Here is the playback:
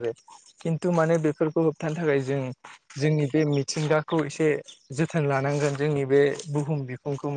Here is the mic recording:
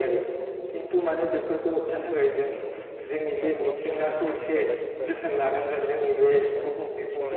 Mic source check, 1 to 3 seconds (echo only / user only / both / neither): echo only